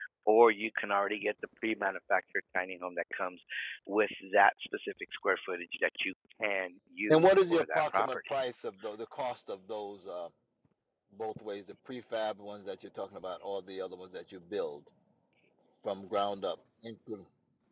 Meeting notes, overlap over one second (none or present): present